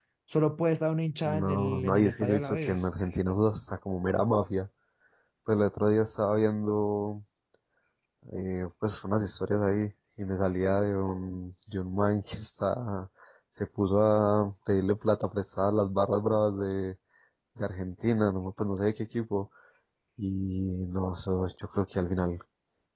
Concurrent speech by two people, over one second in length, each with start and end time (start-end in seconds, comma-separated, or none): 1.2-2.8